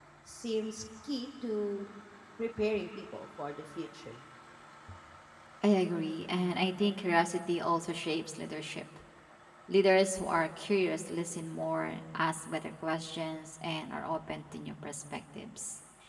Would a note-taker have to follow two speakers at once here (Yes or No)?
No